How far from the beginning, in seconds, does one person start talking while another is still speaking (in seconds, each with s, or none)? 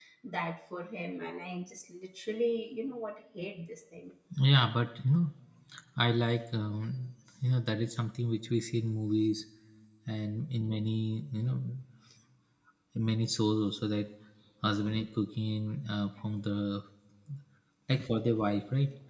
none